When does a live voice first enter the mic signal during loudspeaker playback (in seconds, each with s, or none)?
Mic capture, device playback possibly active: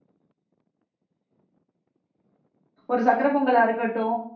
2.9 s